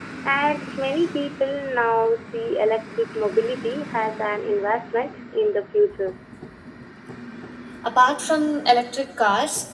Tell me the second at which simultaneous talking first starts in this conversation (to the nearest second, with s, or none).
none